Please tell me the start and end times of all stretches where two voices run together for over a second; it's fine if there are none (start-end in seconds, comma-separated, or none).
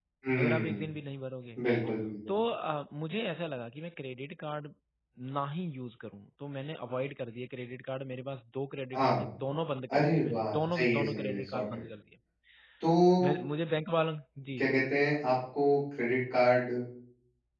9.9-11.8